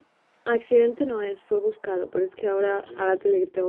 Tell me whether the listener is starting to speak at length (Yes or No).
No